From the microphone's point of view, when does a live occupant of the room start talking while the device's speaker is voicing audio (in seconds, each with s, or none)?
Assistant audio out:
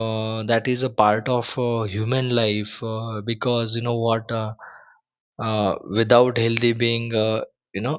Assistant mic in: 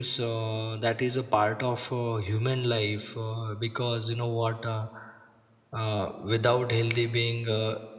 none